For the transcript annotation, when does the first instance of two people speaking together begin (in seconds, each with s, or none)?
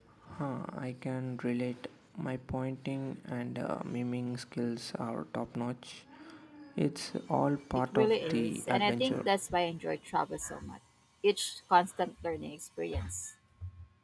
7.9 s